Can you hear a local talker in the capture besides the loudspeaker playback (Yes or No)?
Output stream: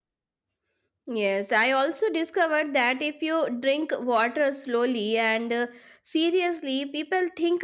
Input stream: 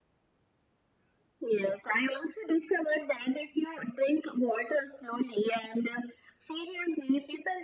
No